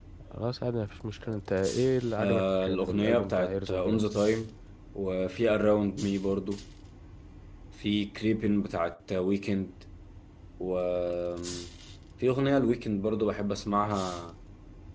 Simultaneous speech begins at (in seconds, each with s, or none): 2.2 s